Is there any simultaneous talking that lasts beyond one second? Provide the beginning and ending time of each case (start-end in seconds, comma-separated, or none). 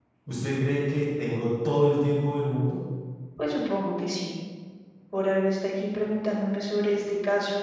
none